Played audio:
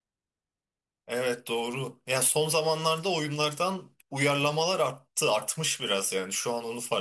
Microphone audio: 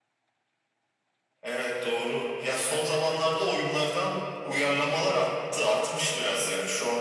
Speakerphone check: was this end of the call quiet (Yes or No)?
Yes